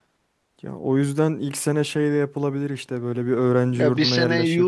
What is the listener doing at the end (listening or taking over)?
taking over